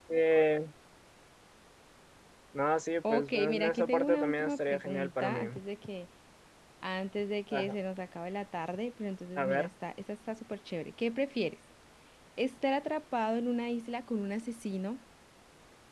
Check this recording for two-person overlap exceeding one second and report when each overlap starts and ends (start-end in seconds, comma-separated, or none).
3.1-5.4